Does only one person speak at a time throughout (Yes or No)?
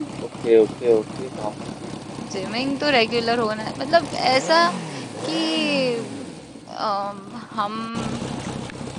Yes